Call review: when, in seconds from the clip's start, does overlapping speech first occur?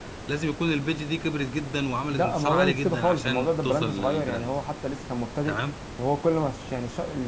2.1 s

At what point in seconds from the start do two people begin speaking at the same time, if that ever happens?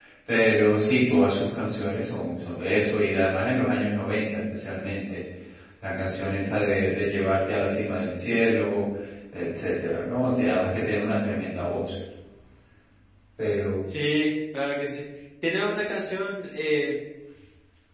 none

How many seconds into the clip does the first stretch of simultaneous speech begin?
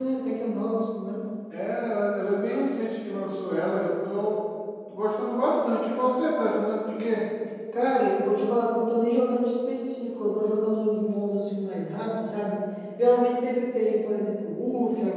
none

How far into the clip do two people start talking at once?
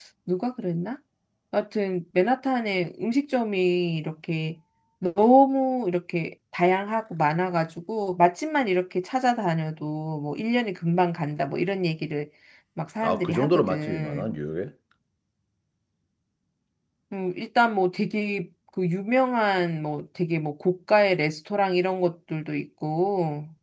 13.0 s

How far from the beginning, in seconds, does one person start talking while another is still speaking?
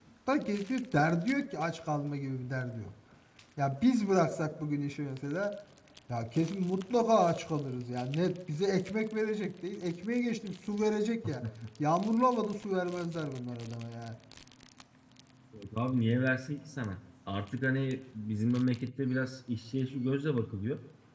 none

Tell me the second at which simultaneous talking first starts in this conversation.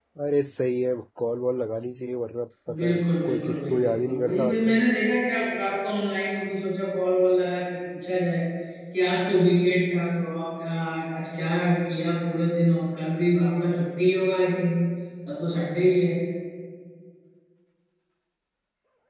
2.7 s

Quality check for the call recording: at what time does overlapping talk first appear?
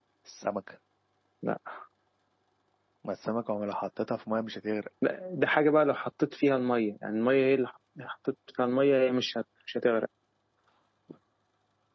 none

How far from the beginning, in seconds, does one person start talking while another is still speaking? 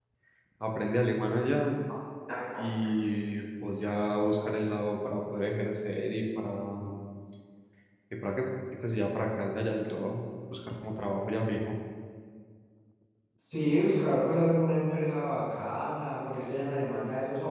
none

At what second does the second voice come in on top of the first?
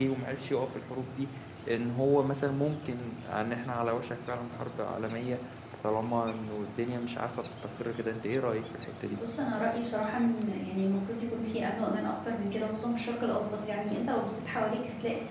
none

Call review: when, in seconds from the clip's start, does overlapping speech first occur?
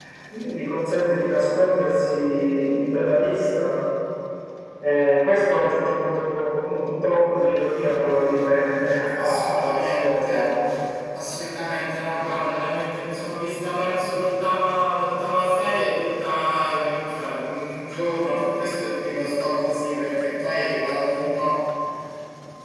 9.1 s

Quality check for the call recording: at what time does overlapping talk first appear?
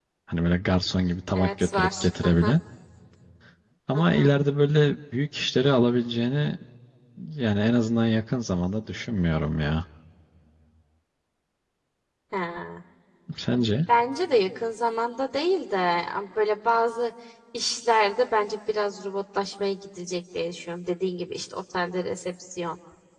1.3 s

